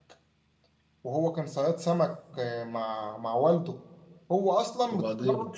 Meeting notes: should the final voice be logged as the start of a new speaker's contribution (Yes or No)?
No